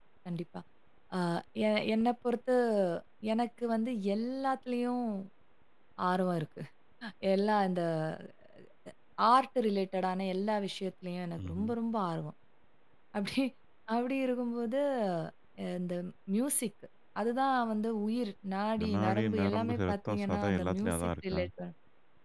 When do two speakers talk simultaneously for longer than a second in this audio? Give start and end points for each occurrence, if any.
18.9-21.4

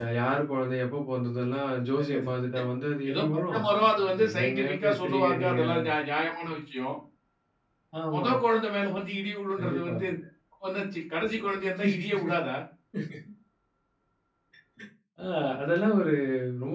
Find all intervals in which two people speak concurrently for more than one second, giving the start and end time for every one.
4.3-5.6

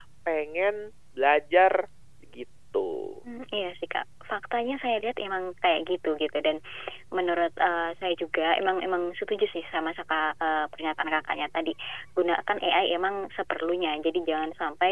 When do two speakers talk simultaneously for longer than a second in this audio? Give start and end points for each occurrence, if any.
none

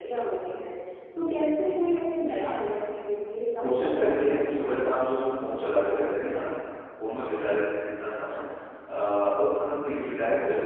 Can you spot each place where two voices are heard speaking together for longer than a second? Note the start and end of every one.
3.6-5.0

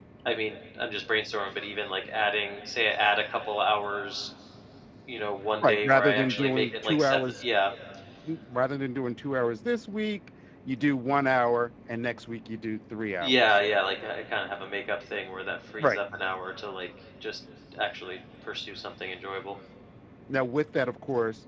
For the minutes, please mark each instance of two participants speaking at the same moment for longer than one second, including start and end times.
5.6-7.4

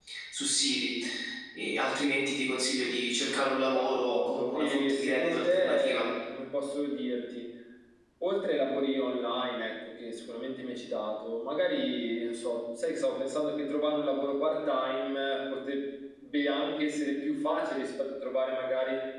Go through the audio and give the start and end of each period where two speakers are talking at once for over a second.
3.7-6.0

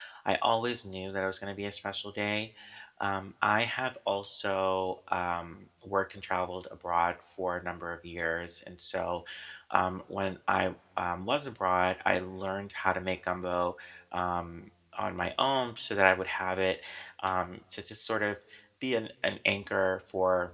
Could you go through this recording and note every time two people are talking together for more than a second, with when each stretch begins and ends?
none

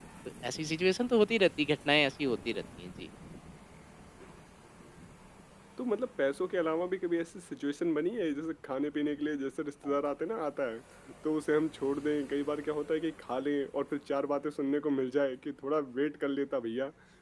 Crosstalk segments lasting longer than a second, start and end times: none

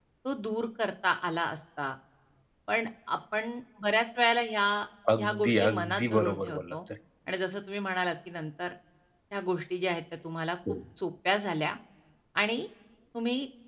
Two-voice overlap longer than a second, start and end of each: 5.2-6.8

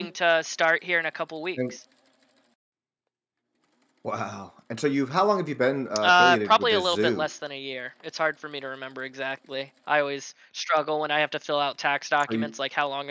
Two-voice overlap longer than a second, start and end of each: 6.0-7.3

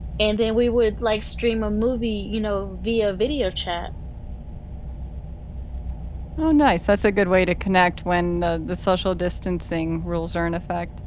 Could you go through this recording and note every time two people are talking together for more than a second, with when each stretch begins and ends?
none

